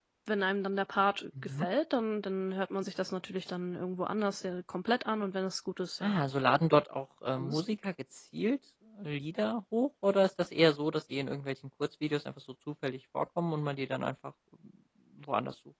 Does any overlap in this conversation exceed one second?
No

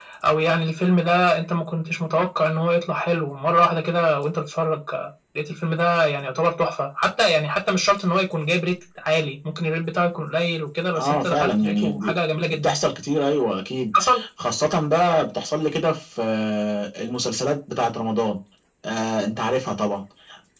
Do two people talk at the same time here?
Yes, from 10.9 s

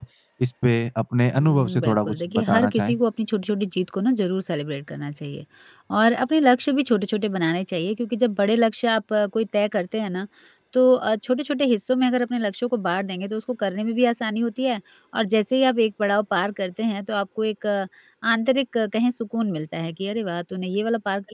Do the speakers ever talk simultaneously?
Yes, from 1.3 s

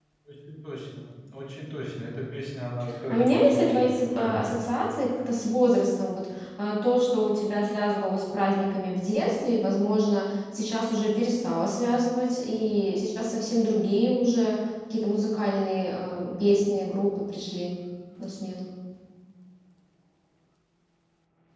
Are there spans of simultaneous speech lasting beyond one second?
Yes, from 3.1 s

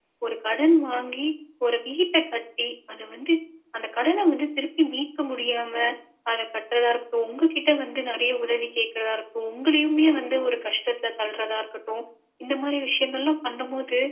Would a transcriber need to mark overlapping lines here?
No

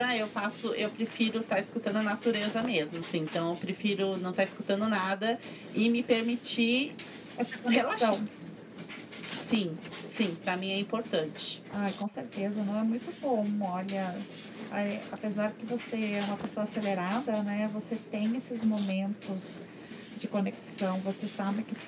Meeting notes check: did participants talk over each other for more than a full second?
No

